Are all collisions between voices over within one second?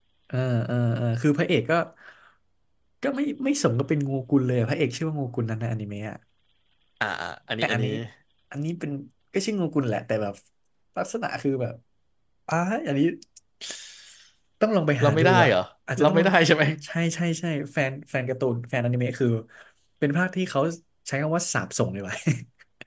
Yes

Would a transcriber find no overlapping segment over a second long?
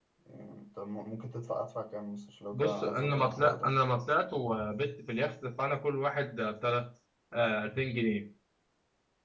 No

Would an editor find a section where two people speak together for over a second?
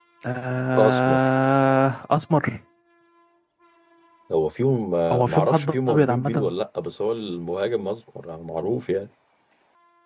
Yes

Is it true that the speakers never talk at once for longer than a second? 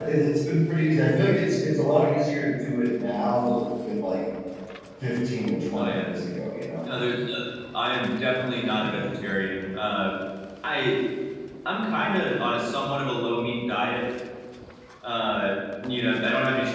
Yes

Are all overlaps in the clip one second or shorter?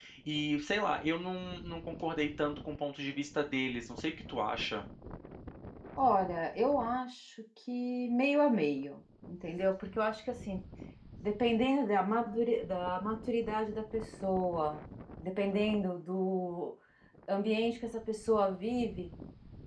Yes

